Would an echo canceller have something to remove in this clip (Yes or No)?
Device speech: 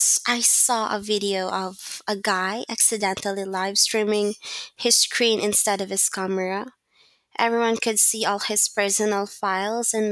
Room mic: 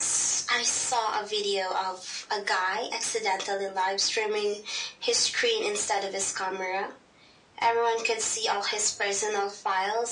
Yes